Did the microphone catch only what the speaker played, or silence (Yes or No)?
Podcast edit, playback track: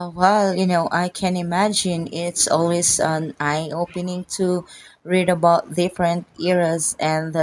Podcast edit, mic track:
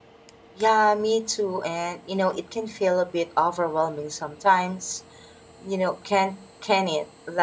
No